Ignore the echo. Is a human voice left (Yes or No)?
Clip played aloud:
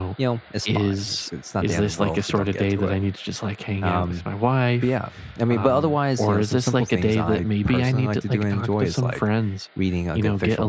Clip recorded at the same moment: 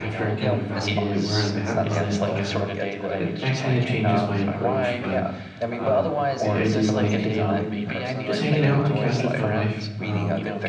Yes